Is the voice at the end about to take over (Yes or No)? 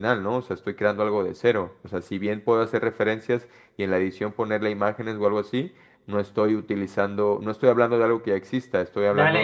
Yes